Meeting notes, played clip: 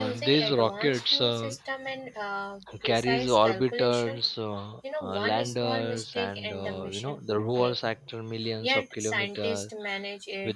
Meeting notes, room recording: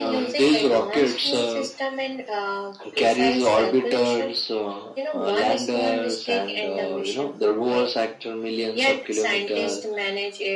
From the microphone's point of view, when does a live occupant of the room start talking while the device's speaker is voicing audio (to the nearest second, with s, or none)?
none